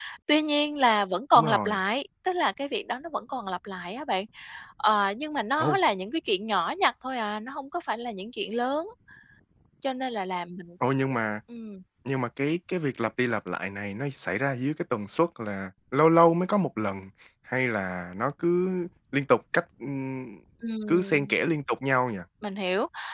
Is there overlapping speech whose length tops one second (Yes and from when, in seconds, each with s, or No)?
No